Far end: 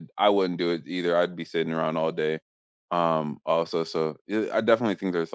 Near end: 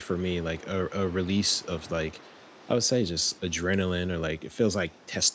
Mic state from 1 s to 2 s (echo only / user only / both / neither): user only